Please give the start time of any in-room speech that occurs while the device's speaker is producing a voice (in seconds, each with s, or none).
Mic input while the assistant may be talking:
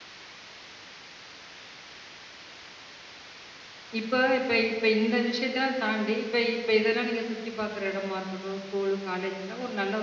4.0 s